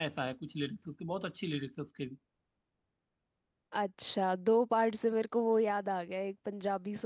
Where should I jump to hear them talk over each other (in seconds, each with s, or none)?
none